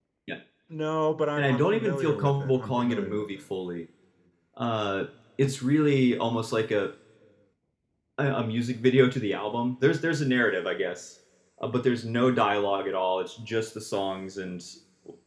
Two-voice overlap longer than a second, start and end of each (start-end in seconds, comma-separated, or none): 1.4-3.5